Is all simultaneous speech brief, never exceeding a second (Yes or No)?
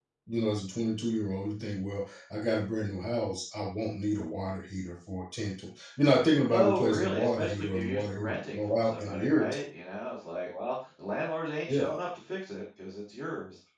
No